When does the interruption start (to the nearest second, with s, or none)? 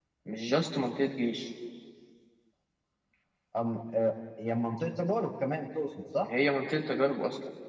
none